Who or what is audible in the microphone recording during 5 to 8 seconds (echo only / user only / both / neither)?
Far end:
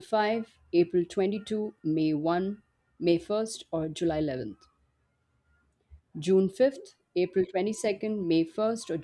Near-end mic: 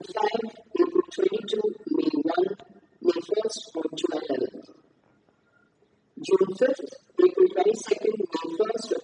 echo only